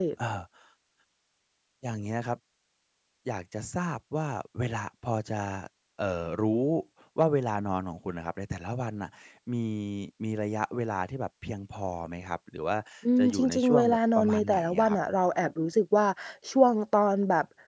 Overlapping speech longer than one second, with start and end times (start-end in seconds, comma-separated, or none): 13.2-15.0